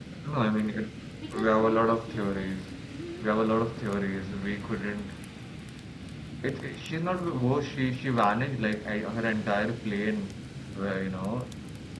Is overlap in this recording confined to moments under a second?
No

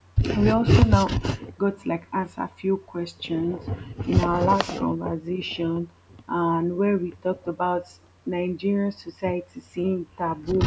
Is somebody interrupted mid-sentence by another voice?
No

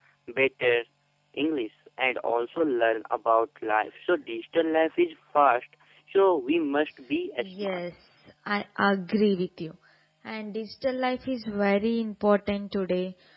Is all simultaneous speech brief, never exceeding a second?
Yes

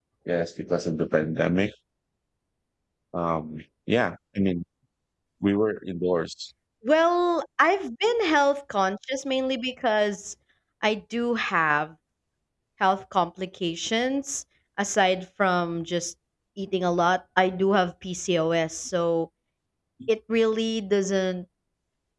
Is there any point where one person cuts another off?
No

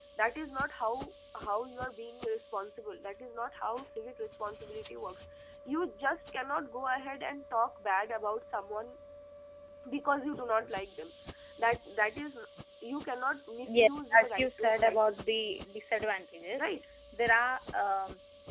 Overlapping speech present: Yes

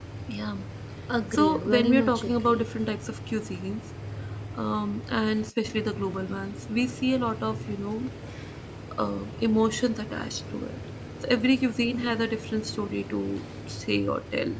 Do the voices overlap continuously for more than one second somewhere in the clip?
Yes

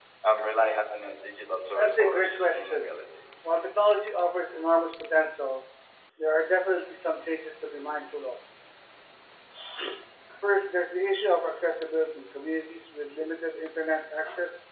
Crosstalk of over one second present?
Yes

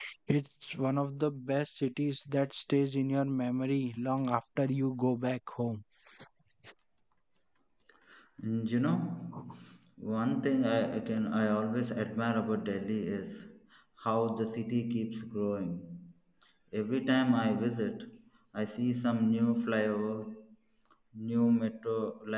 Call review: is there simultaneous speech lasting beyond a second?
No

